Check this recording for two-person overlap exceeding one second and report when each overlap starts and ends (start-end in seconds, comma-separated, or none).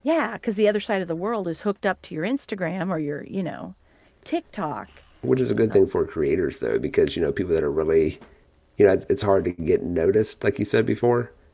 none